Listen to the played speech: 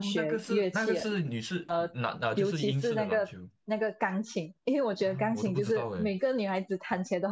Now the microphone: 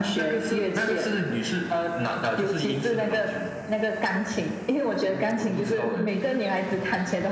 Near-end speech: none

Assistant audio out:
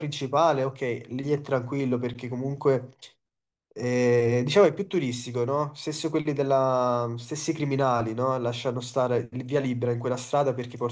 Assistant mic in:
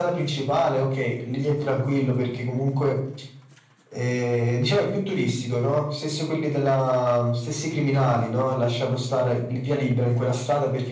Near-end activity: none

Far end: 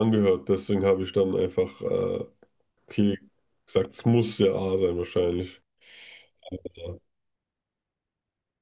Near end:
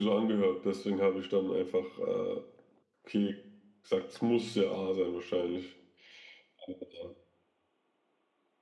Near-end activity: none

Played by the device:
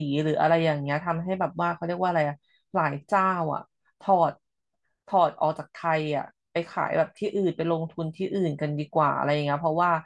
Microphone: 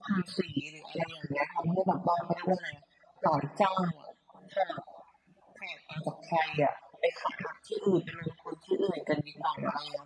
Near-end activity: none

